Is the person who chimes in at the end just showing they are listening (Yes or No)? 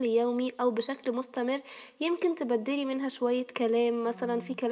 Yes